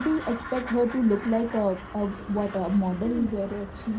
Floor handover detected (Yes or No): No